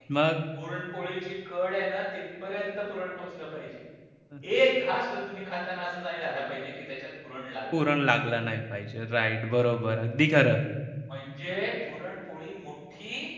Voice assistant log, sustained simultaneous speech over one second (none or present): none